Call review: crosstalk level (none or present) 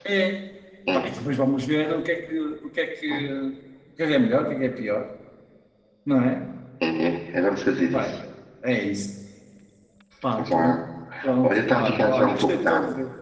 present